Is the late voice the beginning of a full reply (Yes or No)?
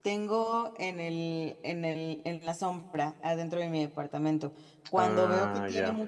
No